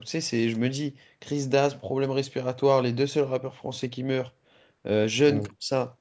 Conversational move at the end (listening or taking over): listening